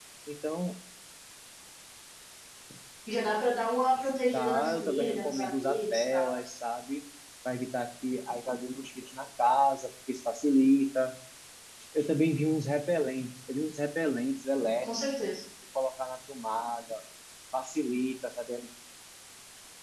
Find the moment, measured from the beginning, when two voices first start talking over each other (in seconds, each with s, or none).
4.3 s